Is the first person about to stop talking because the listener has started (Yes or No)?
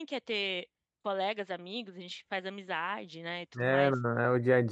Yes